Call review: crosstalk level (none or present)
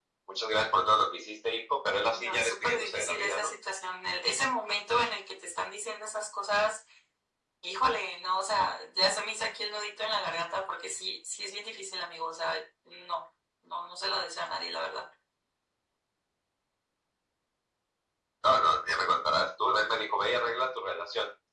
present